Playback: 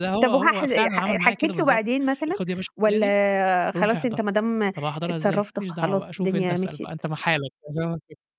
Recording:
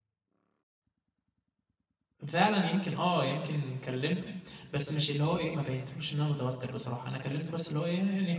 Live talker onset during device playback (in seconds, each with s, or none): 2.3 s